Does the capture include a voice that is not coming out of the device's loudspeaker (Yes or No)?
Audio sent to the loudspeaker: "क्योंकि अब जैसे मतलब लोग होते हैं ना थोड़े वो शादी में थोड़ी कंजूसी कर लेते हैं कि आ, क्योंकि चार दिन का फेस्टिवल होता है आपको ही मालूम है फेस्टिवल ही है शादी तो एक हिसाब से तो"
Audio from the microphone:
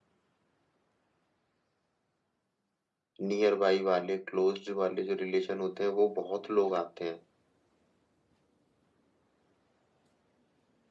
Yes